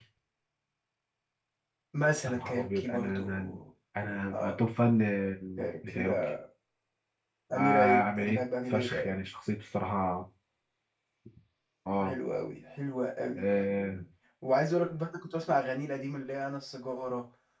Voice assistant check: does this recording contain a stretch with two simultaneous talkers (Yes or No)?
Yes